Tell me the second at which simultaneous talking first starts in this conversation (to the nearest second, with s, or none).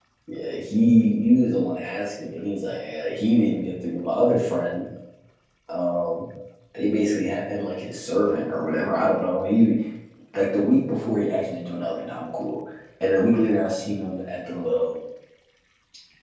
none